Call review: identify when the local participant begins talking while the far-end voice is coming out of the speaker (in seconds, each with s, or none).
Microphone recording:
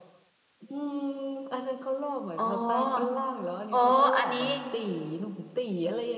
2.4 s